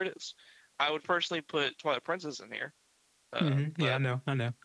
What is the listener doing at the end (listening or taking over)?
taking over